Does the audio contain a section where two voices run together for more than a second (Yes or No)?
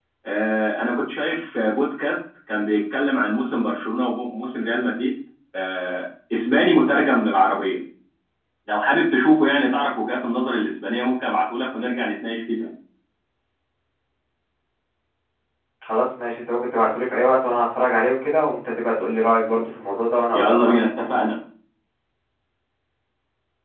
No